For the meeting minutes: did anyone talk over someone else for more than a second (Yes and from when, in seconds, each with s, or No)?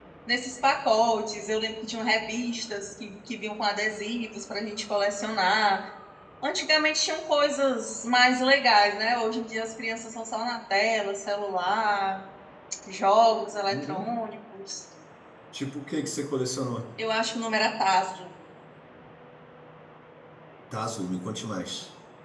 No